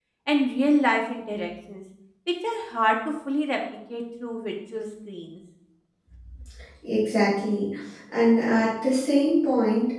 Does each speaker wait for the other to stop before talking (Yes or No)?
Yes